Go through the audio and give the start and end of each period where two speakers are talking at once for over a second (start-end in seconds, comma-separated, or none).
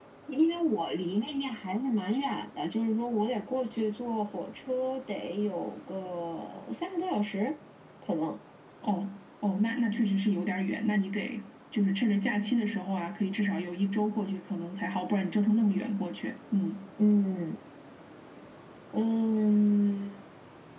none